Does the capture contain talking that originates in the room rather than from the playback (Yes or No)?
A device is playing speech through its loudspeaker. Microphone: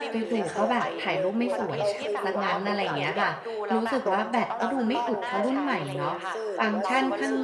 Yes